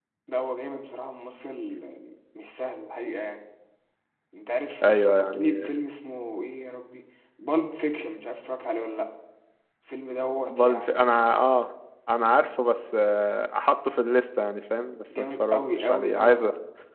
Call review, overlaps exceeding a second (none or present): present